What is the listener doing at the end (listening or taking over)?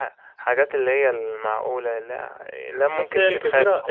taking over